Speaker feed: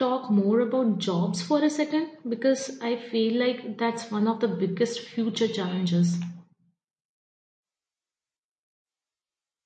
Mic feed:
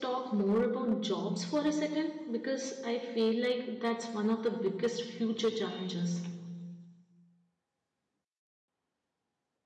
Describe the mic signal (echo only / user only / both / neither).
echo only